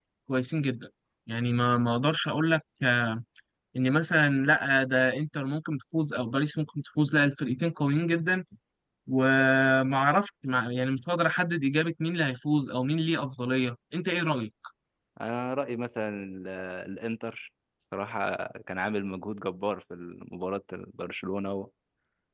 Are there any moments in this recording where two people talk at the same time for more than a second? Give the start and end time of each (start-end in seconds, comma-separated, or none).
none